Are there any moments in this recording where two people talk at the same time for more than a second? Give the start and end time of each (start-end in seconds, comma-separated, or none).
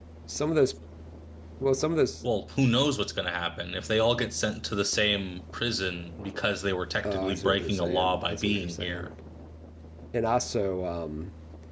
7.0-9.1